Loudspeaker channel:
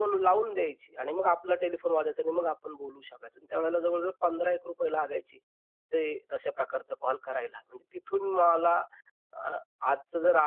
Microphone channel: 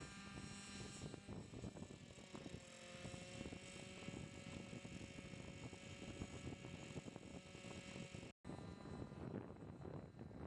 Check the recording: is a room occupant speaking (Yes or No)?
No